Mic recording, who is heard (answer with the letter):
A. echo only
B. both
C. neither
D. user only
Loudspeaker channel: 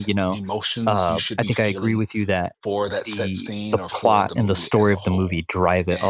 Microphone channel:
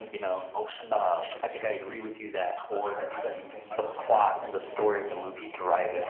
B